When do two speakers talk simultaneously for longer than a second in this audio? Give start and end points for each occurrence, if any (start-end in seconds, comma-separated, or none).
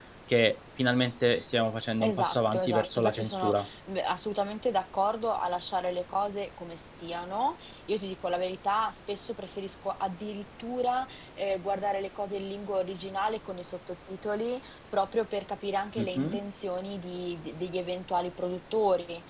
2.0-3.7